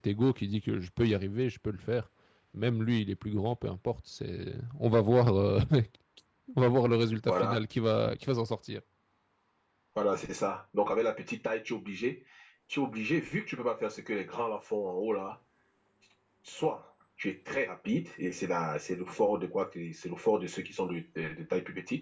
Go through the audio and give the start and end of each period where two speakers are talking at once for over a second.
none

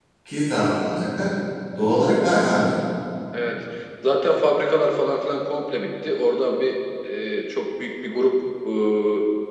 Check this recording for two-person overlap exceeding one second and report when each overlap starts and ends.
none

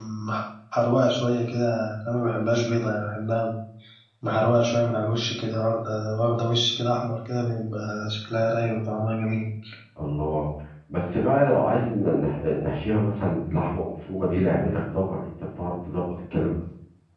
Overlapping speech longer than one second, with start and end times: none

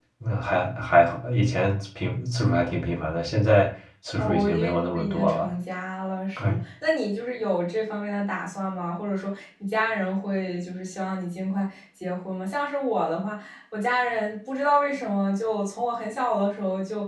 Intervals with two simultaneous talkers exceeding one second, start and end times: 4.2-5.5

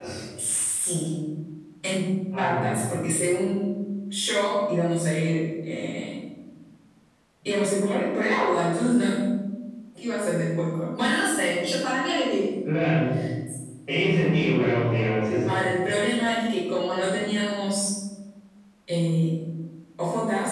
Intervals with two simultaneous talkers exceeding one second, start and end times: none

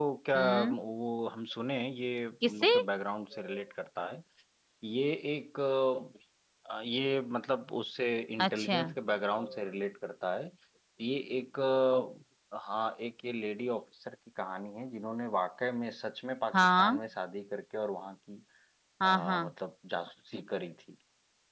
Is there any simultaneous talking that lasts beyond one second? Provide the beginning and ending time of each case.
none

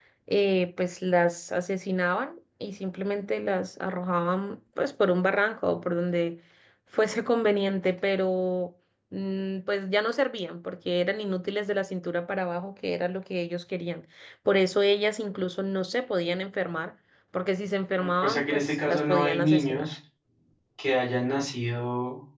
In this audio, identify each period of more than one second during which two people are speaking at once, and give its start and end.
18.0-19.9

